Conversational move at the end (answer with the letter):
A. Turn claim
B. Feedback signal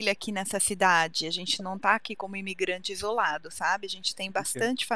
A